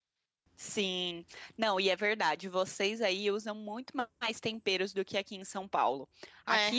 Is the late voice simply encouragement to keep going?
Yes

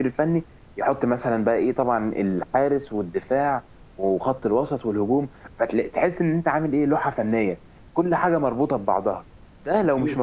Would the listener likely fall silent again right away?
Yes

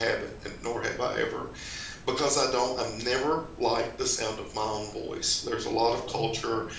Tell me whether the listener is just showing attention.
Yes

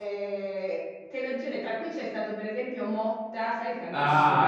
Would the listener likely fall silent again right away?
No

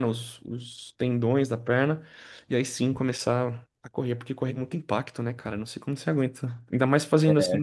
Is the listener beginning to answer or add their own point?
No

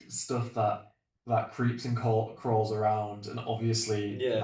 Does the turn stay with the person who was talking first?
Yes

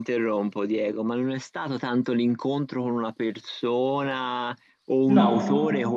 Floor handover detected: No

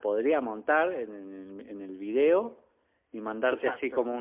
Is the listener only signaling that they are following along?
Yes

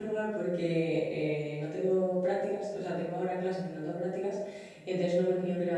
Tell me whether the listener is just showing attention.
Yes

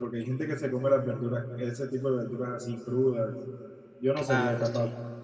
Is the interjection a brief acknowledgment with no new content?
No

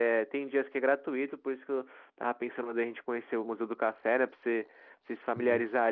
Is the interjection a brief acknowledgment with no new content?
Yes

